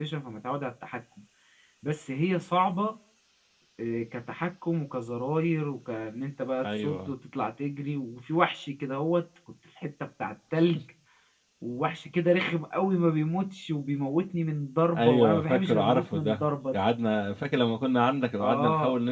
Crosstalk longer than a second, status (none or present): present